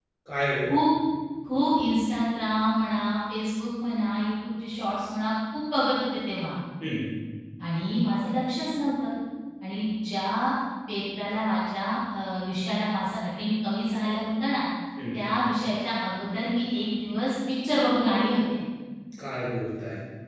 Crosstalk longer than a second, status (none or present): none